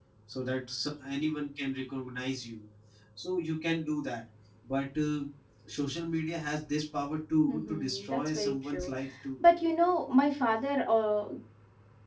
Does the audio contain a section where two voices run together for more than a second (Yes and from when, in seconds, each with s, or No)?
Yes, from 7.5 s